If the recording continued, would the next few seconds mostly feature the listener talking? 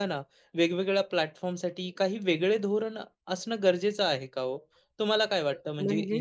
No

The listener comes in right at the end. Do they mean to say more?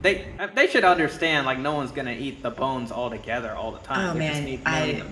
Yes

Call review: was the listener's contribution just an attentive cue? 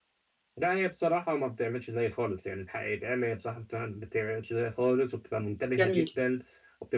Yes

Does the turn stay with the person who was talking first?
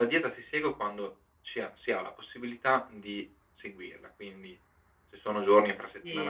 No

